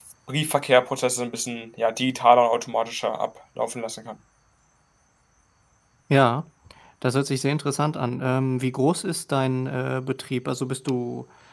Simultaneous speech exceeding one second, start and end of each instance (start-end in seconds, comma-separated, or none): none